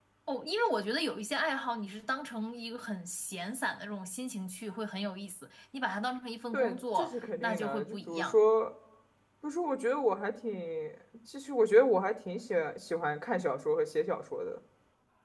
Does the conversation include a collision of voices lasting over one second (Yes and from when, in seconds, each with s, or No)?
Yes, from 6.5 s